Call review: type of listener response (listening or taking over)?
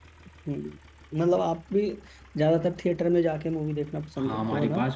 taking over